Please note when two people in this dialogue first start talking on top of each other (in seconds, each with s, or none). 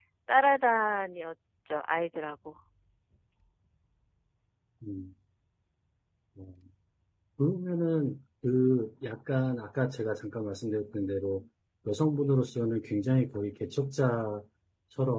none